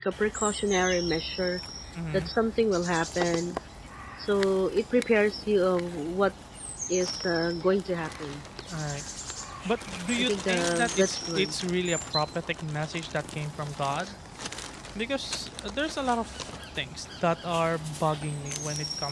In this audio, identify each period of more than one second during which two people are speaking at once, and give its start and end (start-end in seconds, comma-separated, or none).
10.2-11.6